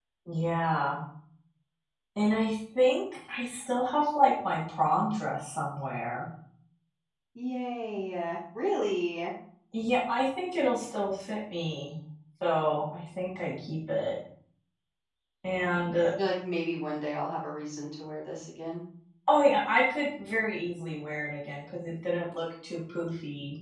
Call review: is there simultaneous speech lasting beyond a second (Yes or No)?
No